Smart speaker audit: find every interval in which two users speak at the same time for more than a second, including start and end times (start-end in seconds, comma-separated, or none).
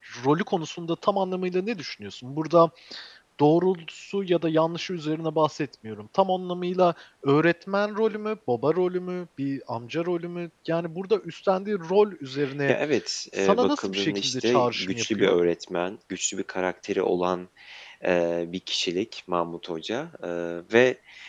13.4-15.4